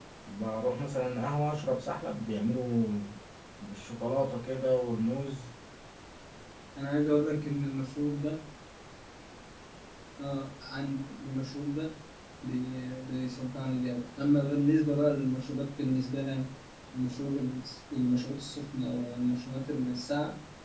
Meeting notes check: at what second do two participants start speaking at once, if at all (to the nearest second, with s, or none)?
none